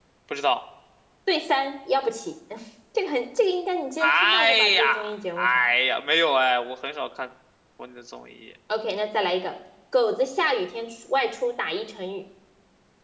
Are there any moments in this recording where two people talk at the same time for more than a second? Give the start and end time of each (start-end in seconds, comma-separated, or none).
4.0-5.7